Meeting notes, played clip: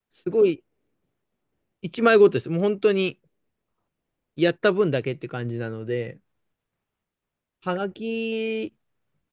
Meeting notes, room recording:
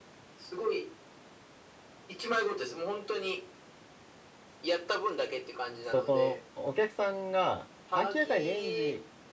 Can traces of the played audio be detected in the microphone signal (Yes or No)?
Yes